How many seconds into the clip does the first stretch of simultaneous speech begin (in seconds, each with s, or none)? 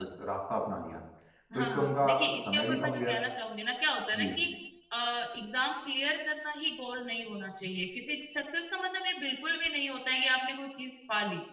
1.5 s